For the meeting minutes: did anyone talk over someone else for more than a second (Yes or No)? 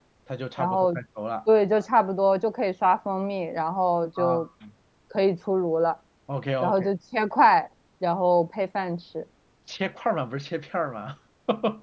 No